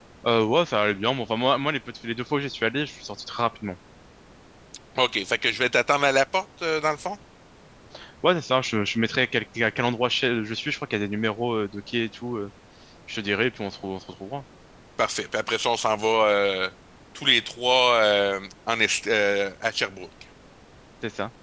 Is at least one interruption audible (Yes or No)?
No